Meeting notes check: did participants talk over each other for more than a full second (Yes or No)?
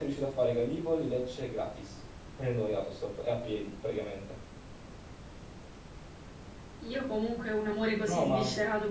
No